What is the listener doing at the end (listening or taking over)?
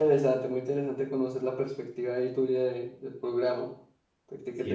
taking over